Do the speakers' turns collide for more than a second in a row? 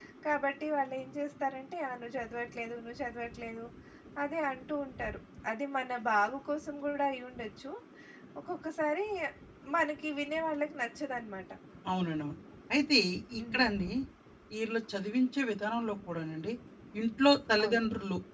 No

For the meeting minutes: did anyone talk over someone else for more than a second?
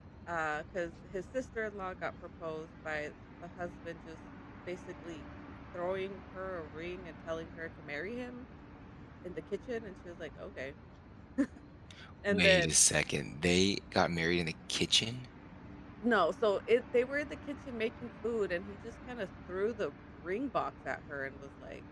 No

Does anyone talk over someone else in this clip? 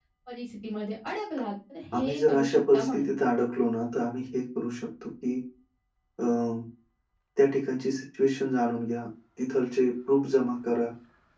Yes, from 1.9 s

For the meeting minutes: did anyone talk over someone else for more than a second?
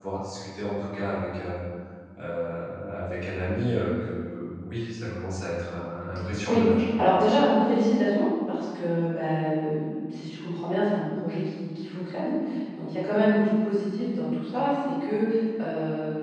No

